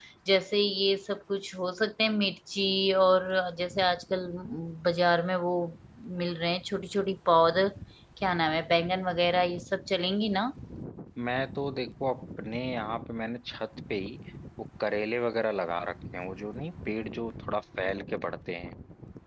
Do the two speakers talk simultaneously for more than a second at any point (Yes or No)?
No